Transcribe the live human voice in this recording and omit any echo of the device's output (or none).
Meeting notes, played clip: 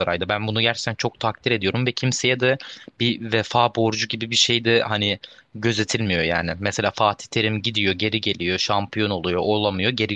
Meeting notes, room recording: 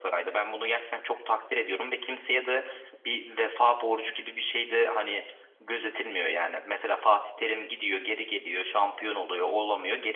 none